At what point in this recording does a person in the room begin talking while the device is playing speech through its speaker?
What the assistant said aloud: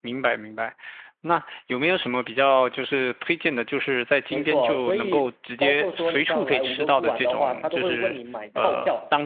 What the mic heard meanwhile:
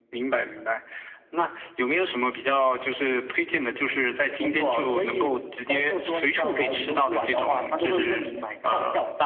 none

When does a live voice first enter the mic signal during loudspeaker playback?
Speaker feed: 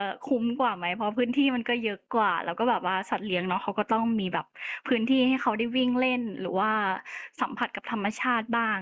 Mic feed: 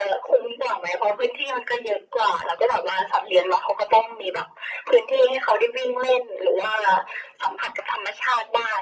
none

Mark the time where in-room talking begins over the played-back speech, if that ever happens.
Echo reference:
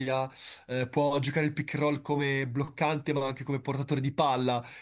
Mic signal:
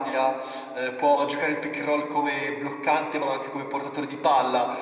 none

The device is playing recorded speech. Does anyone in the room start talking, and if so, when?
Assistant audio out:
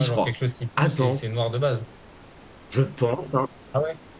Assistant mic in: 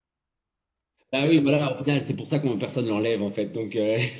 1.1 s

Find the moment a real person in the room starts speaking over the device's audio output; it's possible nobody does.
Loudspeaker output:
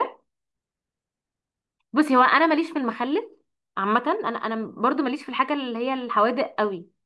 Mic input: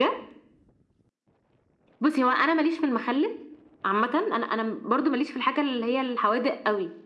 none

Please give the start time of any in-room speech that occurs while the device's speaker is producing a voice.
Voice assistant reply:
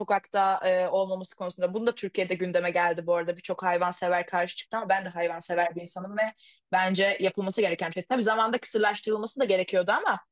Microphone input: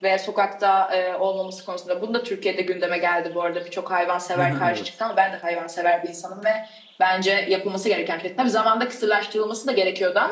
4.3 s

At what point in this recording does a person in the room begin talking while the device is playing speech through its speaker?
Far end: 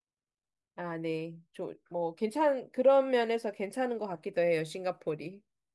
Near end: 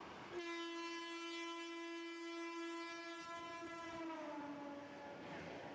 none

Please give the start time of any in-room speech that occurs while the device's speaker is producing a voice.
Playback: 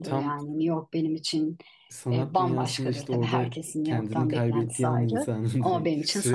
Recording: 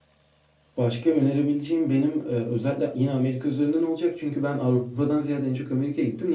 0.8 s

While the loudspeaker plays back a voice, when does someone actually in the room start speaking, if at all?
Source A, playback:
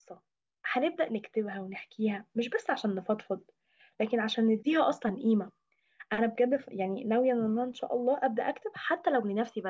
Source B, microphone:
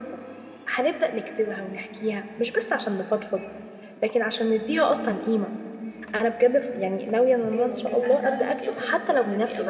7.5 s

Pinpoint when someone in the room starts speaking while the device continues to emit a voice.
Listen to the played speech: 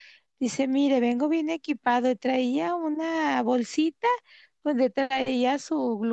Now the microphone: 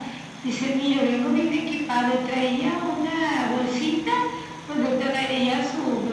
none

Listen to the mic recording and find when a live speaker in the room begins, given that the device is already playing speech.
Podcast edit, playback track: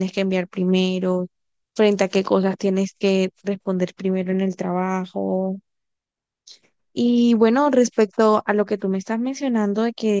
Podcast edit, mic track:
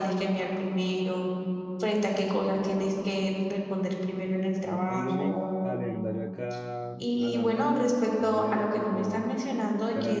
4.6 s

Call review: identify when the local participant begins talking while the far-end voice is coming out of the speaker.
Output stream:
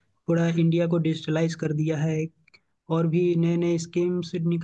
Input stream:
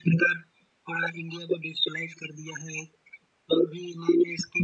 none

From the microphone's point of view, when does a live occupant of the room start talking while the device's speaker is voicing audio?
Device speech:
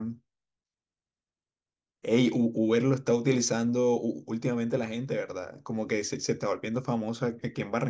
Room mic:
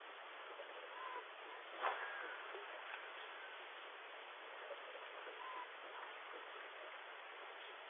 none

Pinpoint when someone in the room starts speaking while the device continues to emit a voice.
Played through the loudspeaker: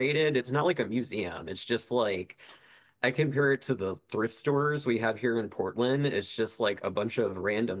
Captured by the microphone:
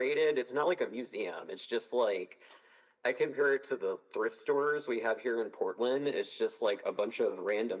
none

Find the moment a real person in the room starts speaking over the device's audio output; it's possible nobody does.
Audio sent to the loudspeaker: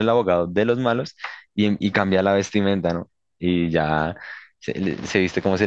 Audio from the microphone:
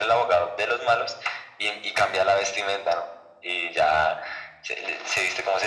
none

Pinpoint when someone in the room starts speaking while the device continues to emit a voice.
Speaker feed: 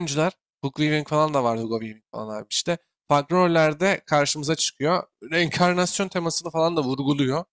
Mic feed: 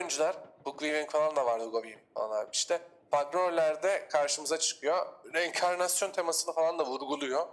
none

